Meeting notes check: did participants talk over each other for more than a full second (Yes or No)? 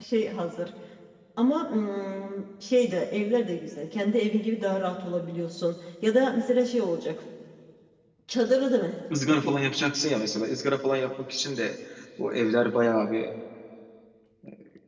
No